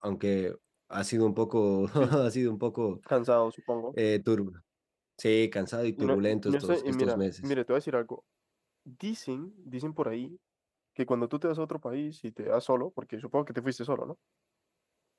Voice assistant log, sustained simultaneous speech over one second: present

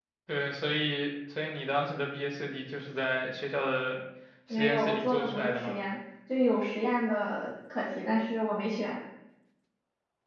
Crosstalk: present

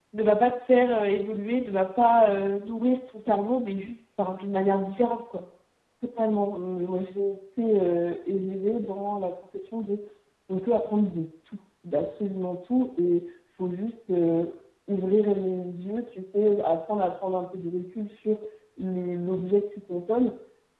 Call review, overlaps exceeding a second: none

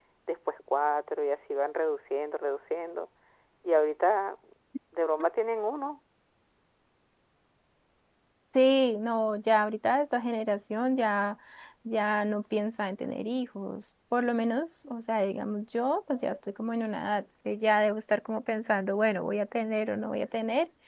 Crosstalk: none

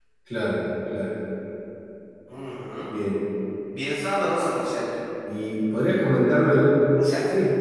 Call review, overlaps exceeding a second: none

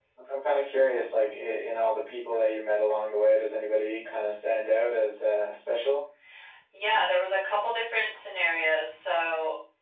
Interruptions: none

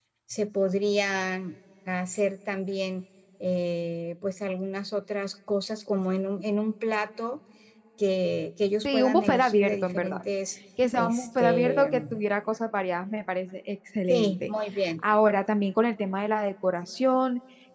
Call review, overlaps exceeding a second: present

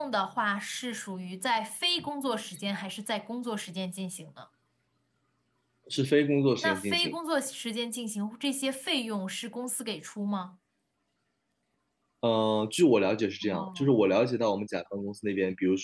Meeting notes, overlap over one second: none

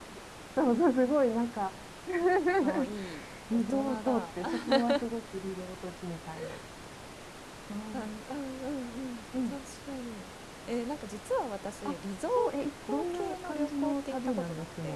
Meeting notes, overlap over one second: present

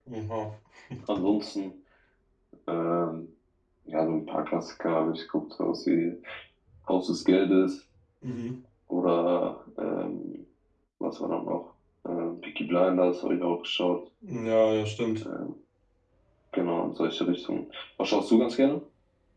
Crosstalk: none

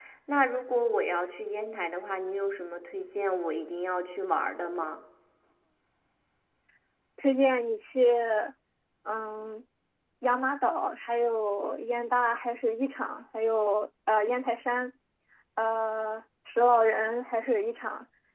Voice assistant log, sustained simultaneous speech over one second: none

